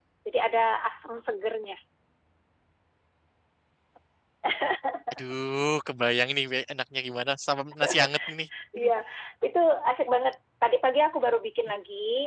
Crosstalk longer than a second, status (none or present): none